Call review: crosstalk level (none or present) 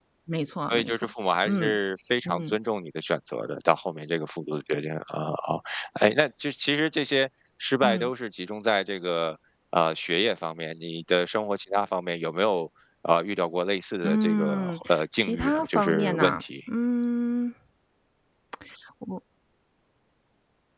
present